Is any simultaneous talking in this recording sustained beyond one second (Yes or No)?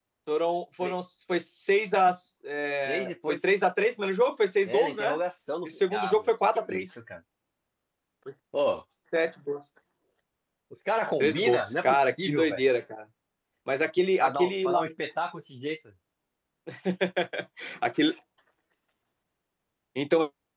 Yes